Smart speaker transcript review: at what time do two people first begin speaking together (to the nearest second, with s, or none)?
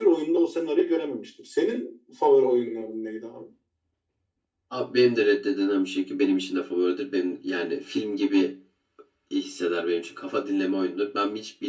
none